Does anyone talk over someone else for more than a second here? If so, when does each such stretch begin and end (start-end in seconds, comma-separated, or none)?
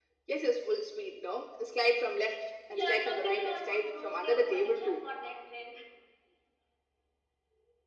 2.7-5.1